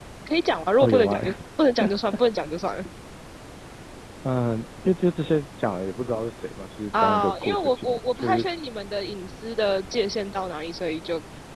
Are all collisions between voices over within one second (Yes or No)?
No